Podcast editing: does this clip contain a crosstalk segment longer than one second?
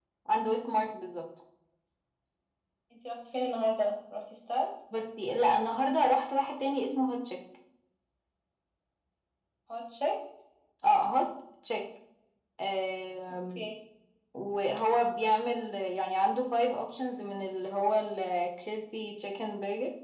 No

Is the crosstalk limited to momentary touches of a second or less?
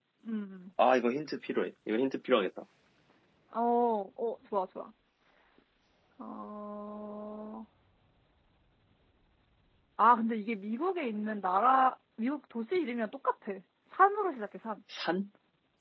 Yes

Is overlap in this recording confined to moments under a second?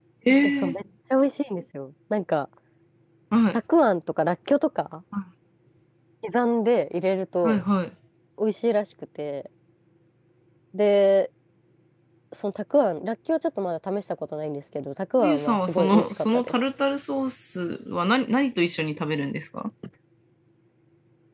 No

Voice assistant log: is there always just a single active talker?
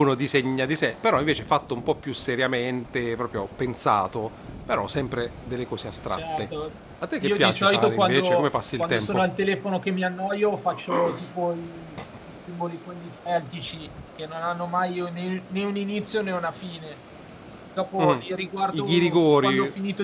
No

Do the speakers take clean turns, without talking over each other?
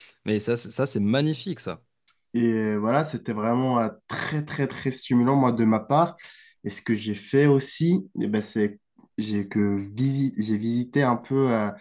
Yes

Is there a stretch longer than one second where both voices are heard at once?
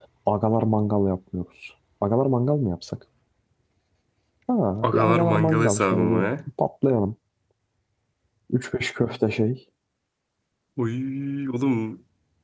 Yes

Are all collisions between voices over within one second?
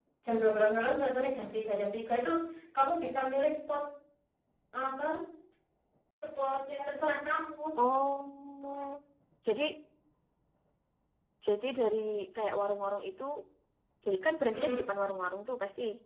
Yes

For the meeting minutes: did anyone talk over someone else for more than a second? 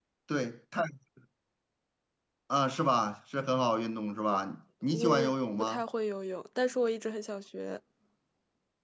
No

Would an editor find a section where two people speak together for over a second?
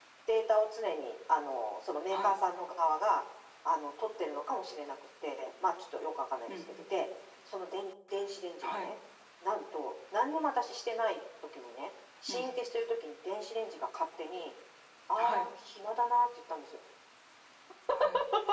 No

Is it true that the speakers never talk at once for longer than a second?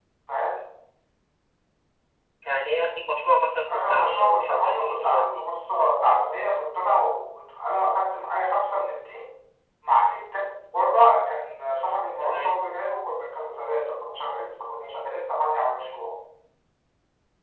No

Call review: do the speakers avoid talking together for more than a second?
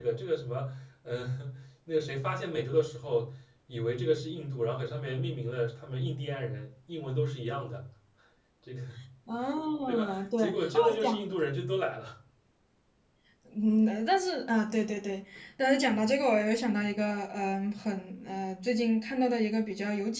No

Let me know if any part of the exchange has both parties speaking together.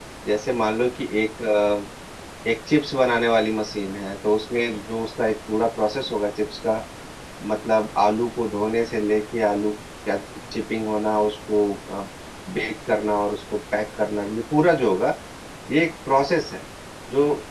No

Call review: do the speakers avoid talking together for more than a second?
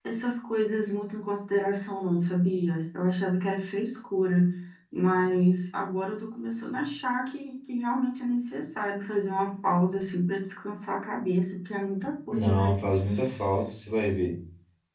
Yes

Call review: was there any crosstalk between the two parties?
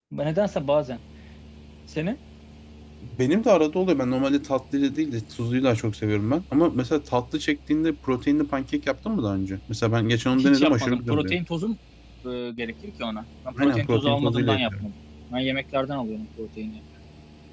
Yes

